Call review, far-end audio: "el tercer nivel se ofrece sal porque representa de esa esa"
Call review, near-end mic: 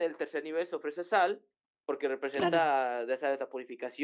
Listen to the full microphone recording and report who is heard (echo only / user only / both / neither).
both